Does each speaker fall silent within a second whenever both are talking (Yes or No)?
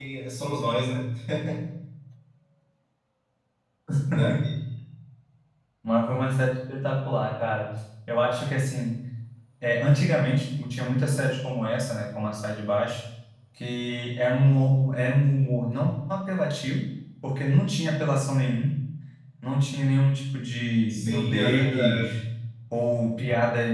No